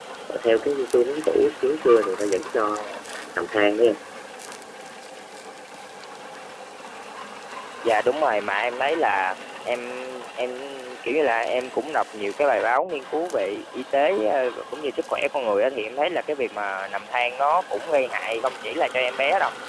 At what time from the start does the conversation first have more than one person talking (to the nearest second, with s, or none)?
none